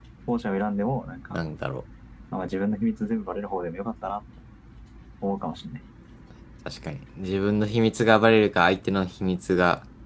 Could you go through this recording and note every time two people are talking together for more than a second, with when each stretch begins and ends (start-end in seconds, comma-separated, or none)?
none